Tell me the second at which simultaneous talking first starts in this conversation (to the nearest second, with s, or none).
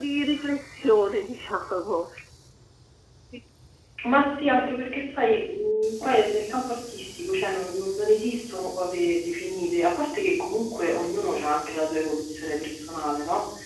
none